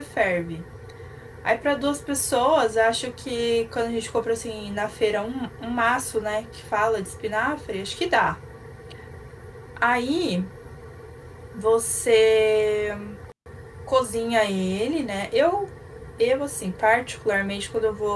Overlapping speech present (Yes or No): No